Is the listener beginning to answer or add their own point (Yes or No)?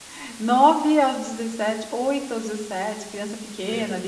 No